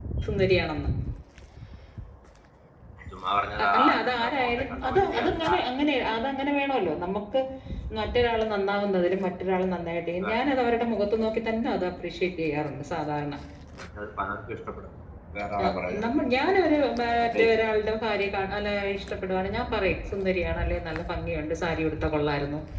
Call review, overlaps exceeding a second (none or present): present